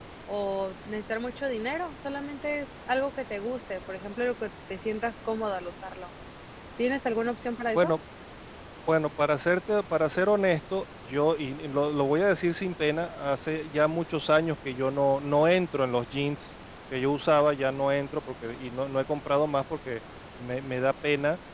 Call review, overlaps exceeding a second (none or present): none